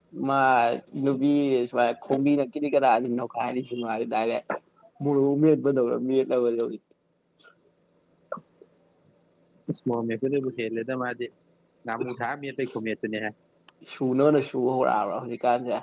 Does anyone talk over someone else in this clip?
No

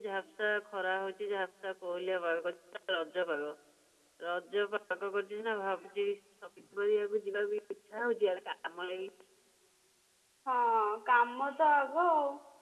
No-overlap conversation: Yes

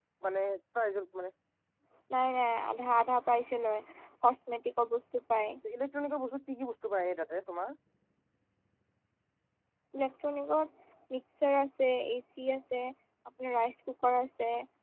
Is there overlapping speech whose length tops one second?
No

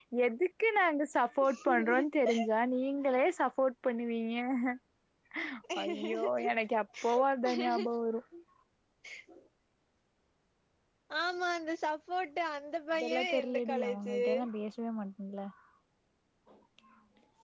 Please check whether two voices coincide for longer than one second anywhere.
Yes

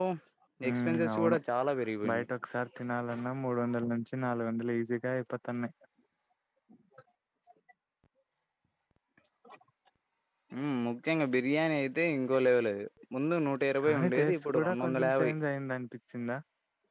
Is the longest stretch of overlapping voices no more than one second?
No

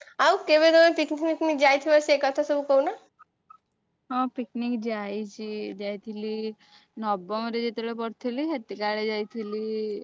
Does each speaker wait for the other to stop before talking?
Yes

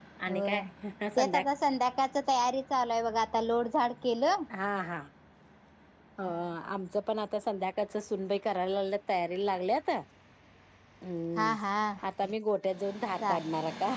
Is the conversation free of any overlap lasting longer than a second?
Yes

